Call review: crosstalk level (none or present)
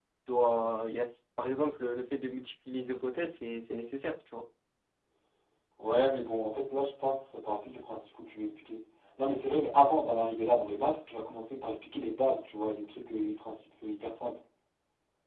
none